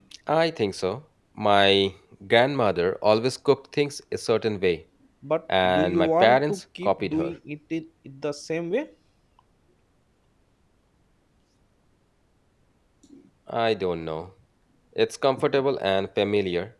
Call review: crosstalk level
present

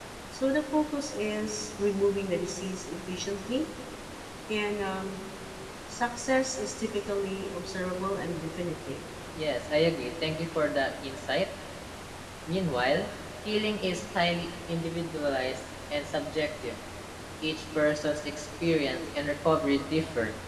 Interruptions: none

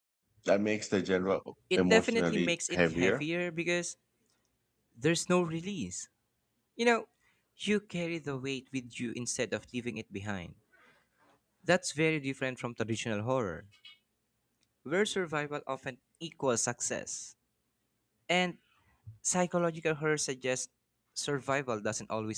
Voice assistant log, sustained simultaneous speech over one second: present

